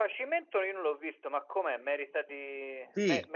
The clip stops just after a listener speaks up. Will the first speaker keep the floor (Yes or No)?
No